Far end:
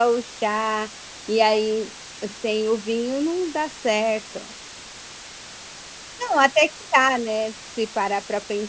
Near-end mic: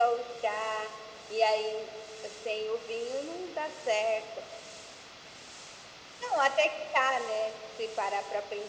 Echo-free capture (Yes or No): No